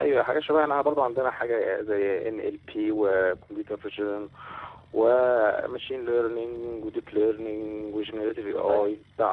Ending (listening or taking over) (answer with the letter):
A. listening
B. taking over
B